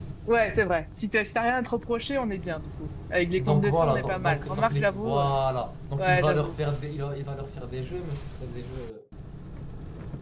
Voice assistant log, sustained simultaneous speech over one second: present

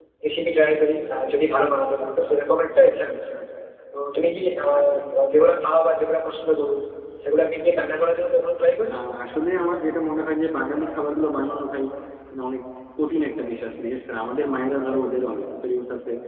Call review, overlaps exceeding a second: none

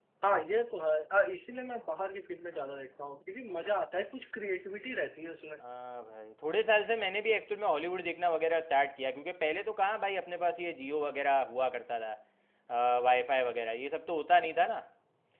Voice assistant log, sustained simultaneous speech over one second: none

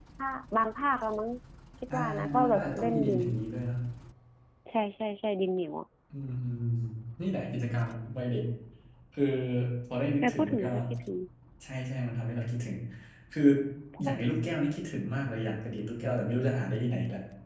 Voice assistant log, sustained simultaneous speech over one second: present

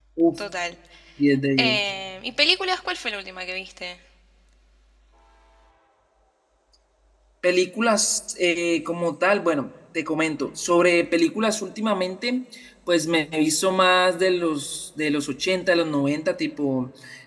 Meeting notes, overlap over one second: none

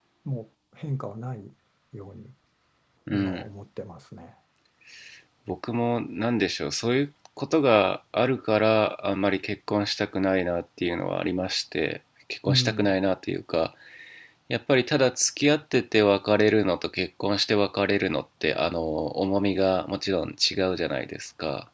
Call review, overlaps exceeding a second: none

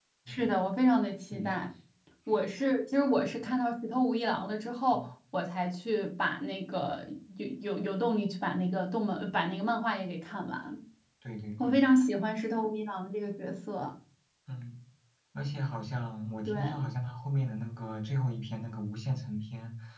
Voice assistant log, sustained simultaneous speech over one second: none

